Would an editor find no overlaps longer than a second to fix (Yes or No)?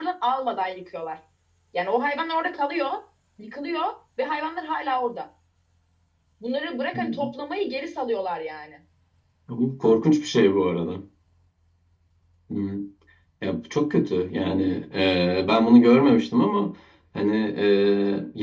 Yes